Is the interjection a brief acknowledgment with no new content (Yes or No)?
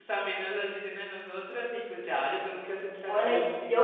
No